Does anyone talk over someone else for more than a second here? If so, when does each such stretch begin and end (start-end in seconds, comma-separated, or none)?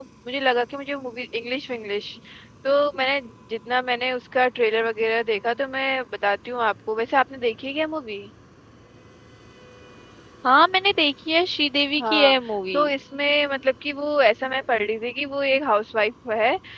none